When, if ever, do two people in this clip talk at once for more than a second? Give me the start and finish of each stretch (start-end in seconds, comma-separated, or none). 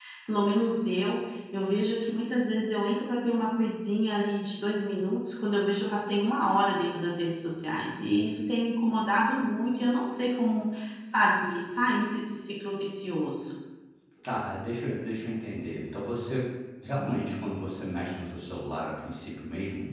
none